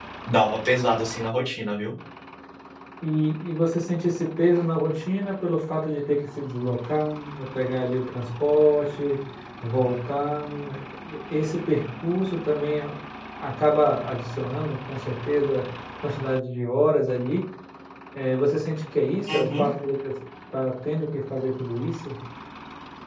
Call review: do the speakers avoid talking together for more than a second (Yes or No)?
Yes